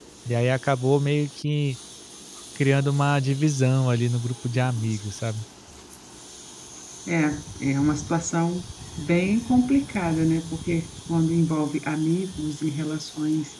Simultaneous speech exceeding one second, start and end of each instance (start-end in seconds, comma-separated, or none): none